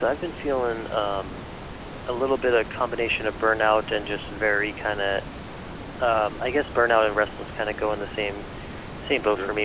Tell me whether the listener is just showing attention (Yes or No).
Yes